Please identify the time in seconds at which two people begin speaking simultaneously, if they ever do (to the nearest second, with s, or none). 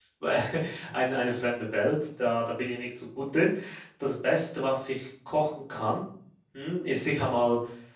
none